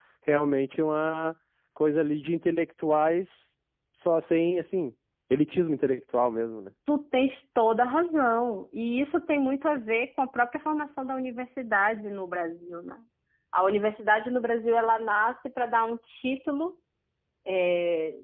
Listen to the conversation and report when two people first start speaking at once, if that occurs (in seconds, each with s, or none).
none